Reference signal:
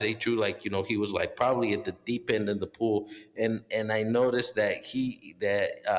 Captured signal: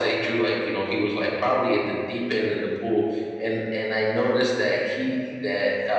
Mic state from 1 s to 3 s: echo only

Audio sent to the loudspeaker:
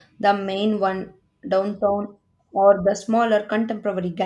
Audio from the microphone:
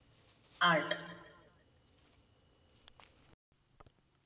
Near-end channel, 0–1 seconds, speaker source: user only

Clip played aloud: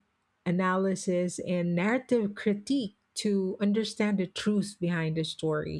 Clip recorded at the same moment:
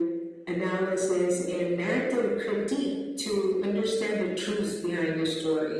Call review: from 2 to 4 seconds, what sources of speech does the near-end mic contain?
echo only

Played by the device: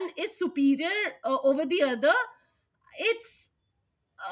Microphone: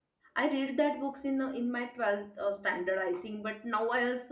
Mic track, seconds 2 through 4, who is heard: user only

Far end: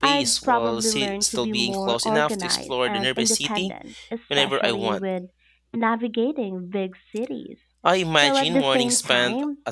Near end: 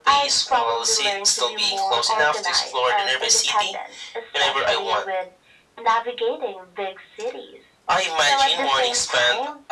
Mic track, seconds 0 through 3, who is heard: echo only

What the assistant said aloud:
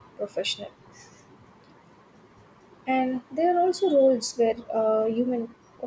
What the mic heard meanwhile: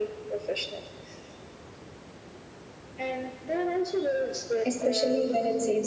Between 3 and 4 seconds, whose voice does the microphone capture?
echo only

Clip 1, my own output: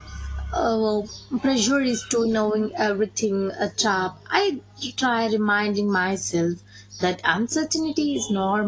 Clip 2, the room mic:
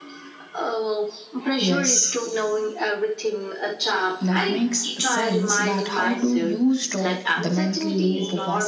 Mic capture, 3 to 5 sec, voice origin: both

